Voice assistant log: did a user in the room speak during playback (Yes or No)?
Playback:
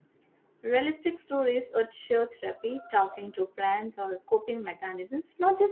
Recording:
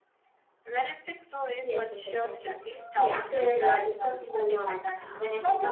Yes